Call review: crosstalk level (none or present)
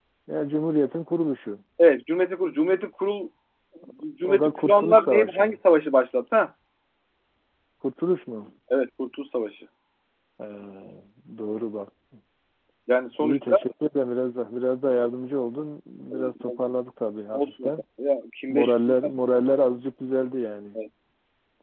present